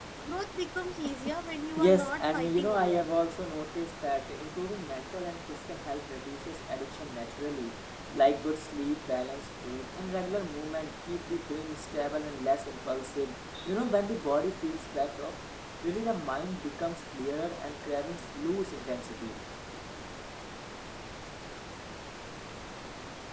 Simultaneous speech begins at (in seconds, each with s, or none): 1.8 s